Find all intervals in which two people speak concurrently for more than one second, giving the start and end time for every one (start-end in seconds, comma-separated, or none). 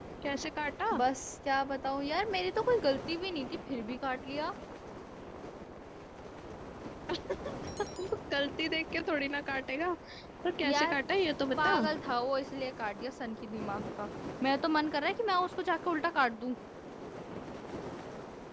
none